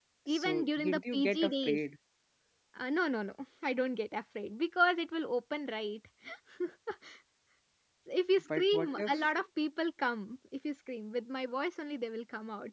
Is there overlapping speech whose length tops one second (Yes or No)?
Yes